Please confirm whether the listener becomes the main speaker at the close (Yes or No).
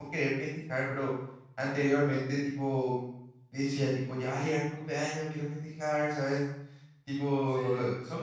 No